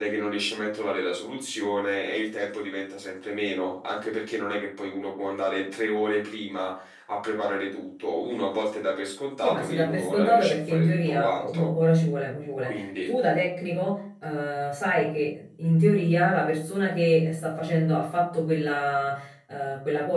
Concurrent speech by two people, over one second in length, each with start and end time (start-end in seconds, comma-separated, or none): 9.4-11.7